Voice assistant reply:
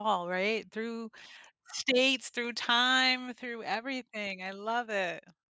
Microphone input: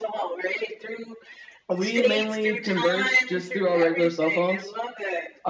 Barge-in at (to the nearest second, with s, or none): 2 s